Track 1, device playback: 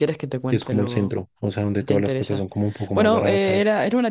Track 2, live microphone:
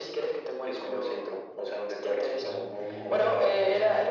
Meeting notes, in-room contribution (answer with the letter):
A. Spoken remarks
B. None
A